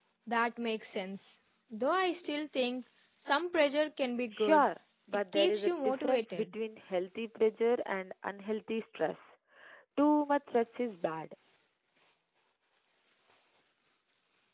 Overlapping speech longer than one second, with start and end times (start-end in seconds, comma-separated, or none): 5.1-6.5